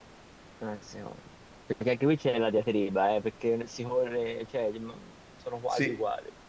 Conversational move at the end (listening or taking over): taking over